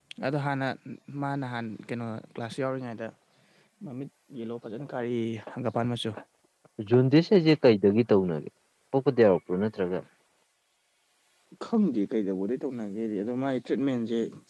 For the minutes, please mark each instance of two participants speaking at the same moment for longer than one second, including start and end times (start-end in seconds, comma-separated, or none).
none